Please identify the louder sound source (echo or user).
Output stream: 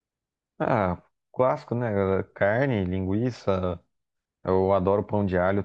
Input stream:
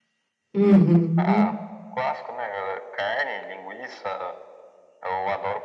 user